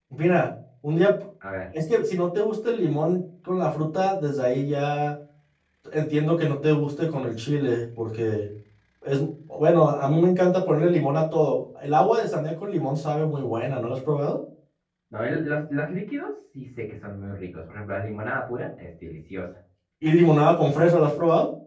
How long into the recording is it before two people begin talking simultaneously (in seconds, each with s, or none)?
none